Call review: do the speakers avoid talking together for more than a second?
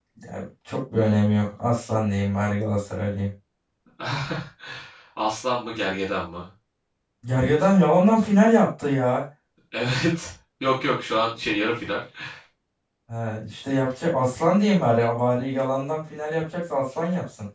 Yes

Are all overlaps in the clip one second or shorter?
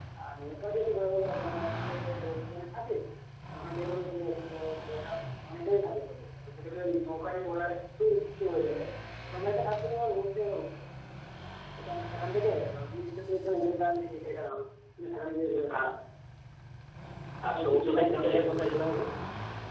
No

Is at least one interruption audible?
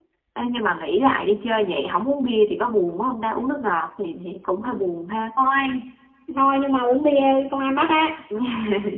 No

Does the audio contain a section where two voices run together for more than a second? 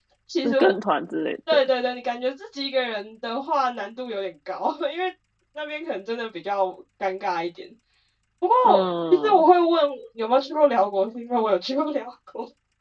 No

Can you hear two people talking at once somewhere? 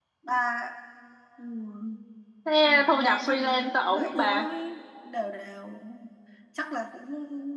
Yes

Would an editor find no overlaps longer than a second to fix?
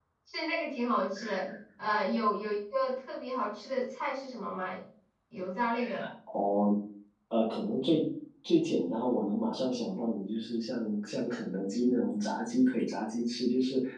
Yes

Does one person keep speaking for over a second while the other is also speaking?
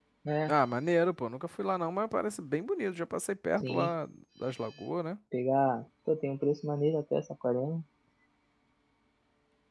No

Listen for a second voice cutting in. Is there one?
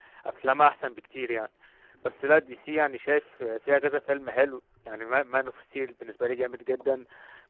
No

